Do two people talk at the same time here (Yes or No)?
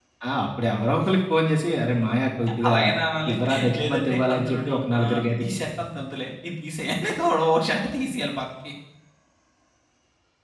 Yes